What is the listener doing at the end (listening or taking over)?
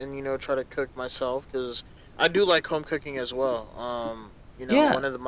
listening